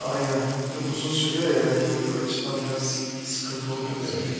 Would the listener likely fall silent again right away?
No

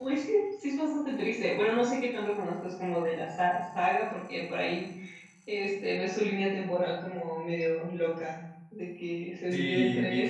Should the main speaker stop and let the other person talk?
Yes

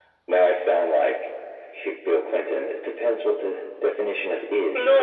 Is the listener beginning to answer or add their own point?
Yes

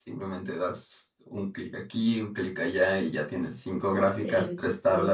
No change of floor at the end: Yes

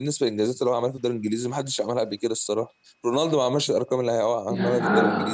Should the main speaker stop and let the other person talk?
Yes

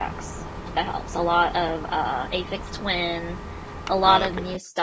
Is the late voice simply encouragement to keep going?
Yes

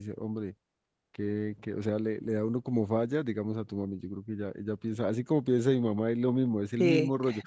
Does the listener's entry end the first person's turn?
No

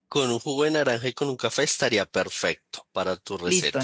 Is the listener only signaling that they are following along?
No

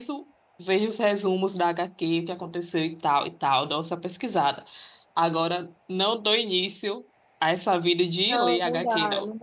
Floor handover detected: Yes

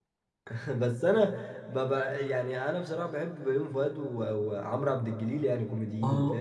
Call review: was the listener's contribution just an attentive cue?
No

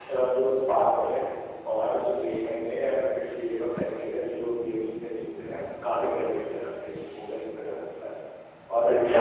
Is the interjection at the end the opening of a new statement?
Yes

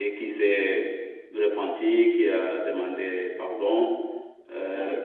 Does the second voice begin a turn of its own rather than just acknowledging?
No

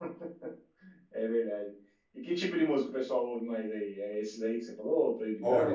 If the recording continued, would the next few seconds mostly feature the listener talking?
Yes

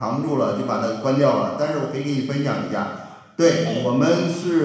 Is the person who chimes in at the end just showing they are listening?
Yes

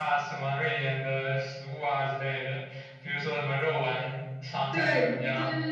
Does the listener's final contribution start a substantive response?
Yes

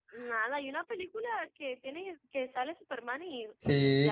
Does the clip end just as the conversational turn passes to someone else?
Yes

